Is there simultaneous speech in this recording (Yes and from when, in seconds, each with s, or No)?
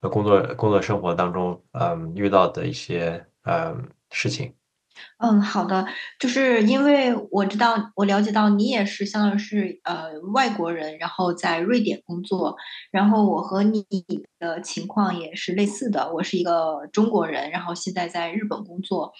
No